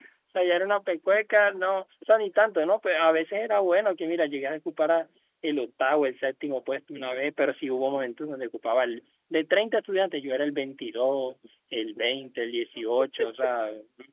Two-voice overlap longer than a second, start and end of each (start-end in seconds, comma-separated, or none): none